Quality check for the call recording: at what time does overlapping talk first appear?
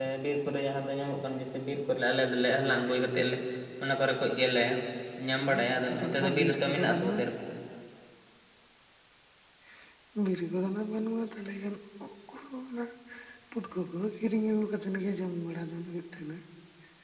5.5 s

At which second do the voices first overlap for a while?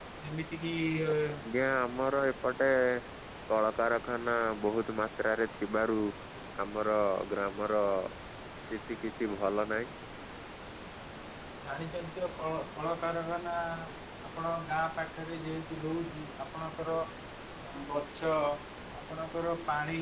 none

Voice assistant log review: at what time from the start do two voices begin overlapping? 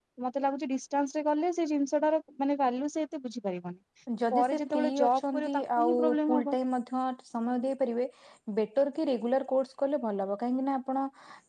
4.1 s

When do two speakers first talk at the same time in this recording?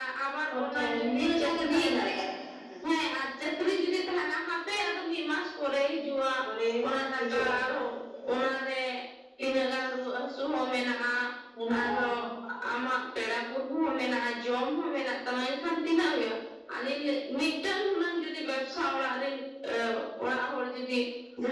0.5 s

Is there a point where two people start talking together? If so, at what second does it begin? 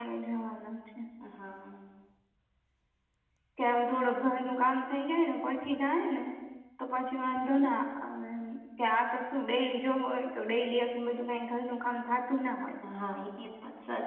none

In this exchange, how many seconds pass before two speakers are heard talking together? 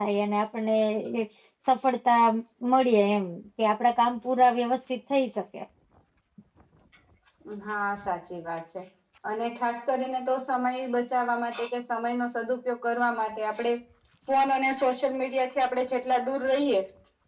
none

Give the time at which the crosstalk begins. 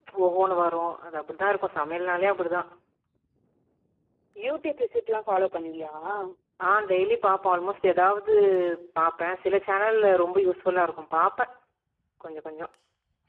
none

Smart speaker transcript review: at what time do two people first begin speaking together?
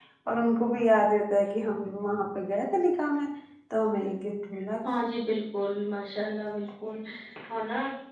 none

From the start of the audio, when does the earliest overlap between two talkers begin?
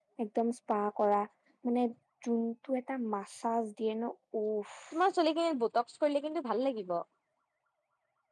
none

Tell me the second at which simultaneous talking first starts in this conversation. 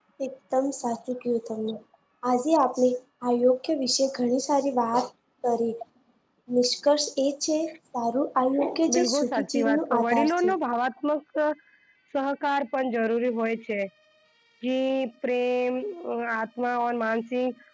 8.9 s

